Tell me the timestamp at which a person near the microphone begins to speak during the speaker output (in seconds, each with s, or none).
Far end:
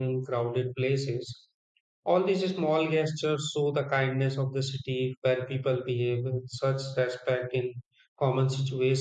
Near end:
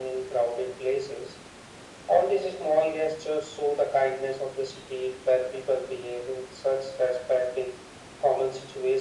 none